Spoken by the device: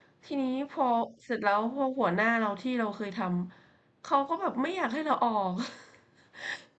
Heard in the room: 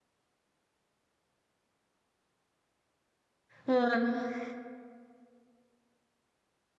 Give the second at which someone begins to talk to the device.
3.6 s

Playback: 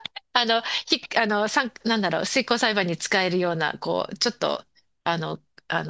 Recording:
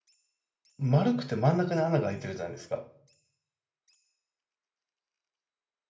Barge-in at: 0.8 s

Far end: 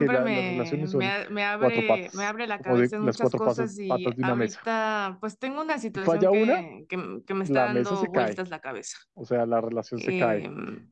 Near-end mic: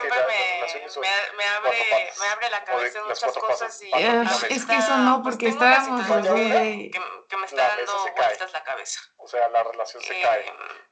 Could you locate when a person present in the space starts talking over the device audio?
3.9 s

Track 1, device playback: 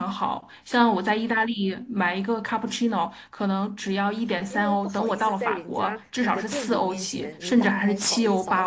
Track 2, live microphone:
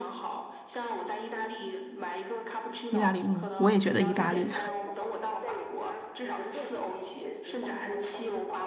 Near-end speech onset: 2.9 s

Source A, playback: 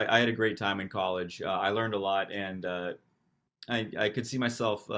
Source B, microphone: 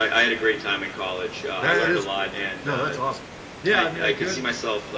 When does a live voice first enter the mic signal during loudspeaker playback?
1.5 s

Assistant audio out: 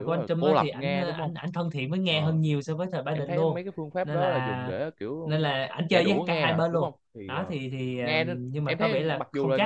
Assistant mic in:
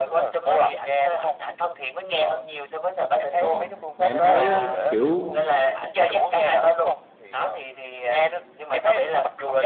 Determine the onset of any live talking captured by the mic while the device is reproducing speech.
3.4 s

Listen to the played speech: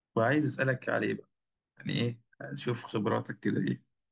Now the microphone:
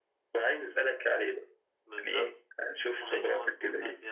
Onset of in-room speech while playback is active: 1.8 s

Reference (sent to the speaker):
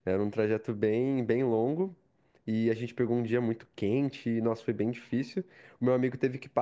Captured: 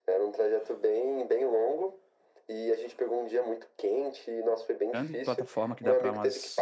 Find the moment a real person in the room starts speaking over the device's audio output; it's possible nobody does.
4.9 s

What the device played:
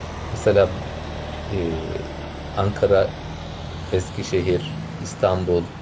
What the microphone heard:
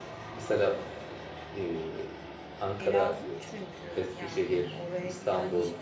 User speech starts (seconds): 2.8 s

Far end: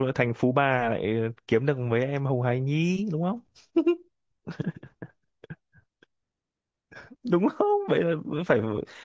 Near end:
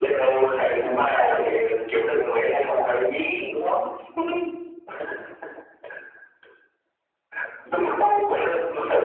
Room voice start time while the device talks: none

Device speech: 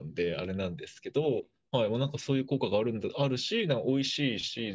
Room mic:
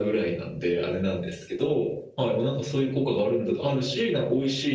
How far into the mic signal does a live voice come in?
none

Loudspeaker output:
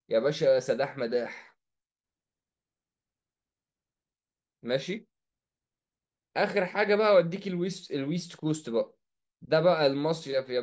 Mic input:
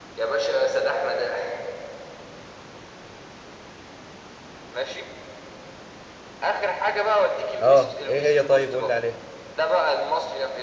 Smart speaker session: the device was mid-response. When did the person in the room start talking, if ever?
7.6 s

